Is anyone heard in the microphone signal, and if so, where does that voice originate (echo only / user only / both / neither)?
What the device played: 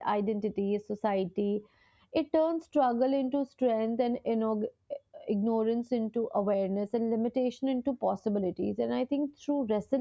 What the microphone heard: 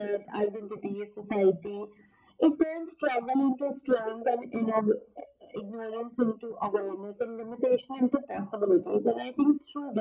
echo only